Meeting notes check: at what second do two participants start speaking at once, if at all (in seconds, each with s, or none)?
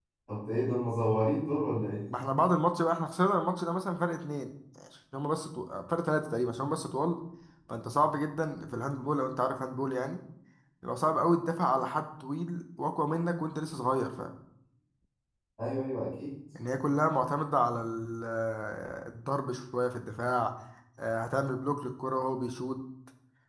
none